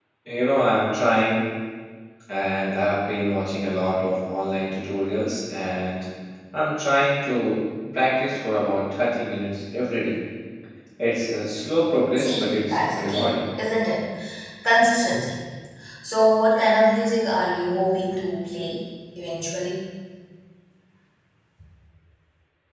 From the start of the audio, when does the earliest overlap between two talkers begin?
12 s

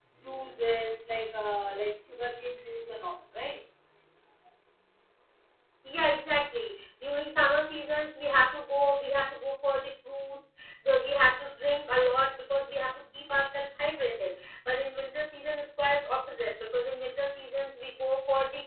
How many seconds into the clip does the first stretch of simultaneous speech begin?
none

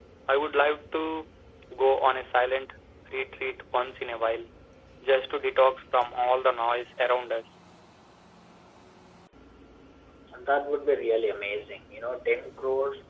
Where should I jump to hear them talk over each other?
none

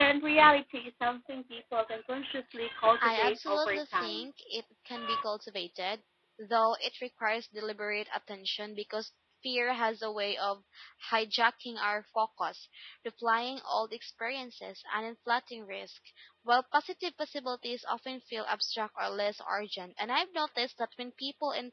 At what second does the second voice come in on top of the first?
3 s

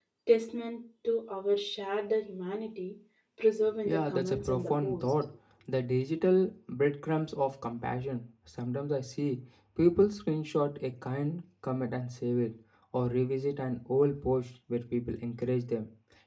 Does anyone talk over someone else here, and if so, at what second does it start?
4 s

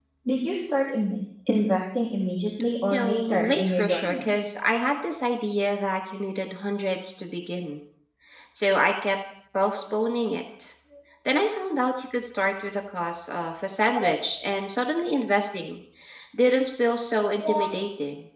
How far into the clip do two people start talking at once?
3 s

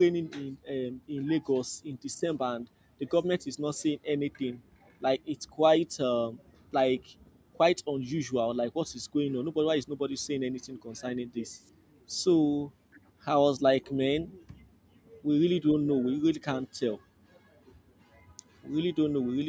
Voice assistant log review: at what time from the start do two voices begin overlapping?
none

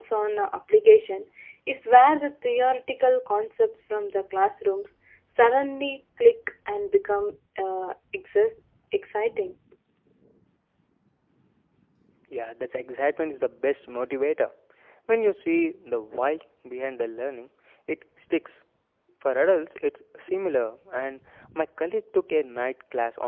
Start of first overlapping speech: none

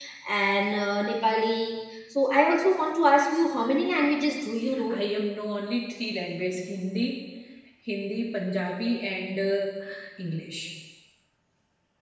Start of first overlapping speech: none

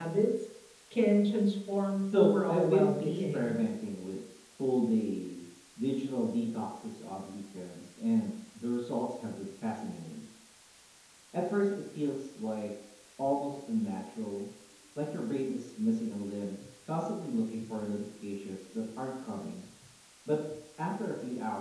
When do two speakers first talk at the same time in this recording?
2 s

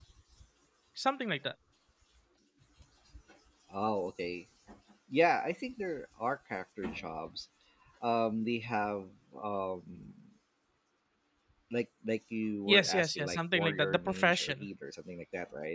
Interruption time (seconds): 13 s

